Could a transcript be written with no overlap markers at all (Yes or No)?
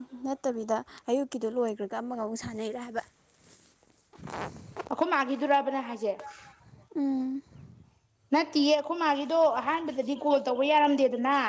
Yes